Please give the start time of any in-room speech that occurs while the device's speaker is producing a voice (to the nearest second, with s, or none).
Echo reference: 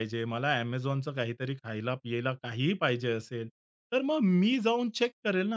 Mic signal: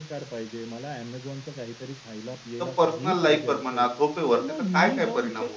3 s